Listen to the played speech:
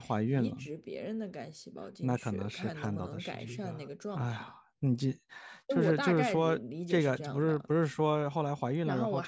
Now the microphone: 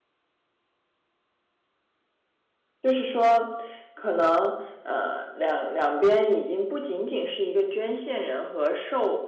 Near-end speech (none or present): present